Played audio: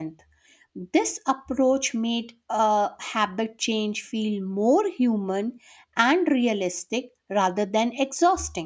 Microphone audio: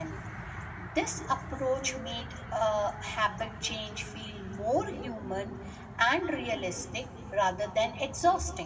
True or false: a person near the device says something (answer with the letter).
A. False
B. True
A